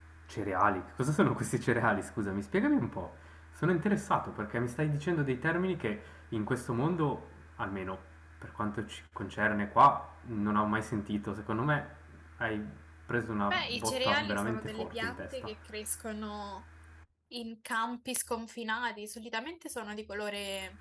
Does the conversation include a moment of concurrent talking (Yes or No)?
Yes